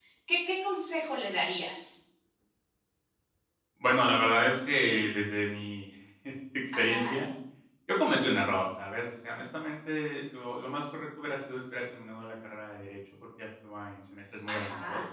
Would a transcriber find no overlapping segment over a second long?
Yes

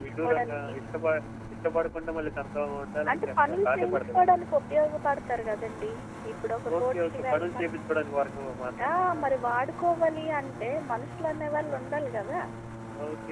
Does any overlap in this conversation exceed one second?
Yes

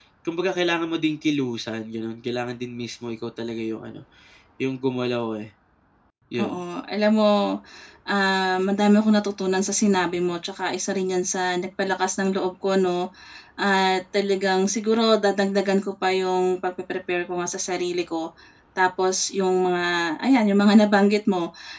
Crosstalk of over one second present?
No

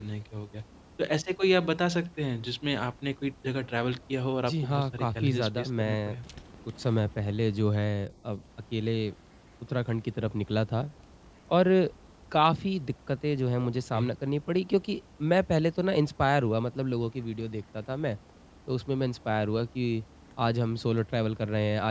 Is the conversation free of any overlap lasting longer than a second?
No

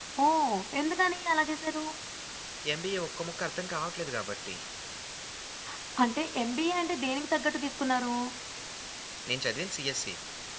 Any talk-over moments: No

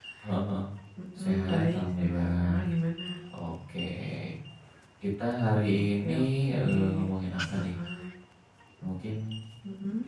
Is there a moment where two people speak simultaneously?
Yes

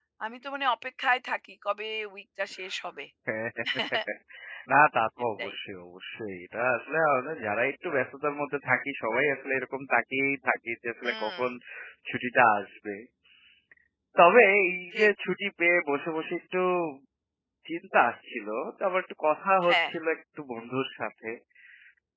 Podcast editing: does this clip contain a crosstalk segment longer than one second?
No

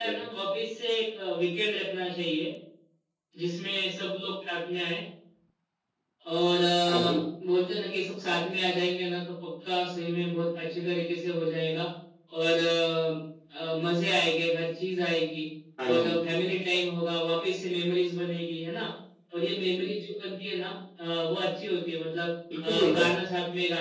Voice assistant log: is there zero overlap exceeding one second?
Yes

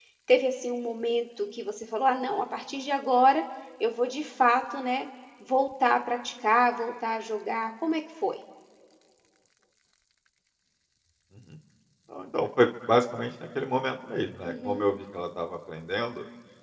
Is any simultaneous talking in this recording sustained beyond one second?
No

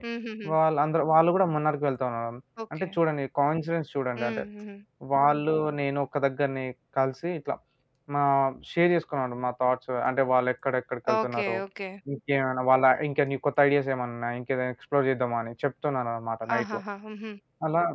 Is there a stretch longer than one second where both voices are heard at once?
No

